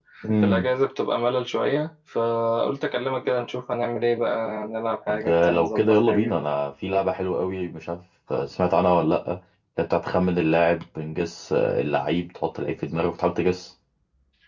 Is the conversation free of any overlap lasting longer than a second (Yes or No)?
No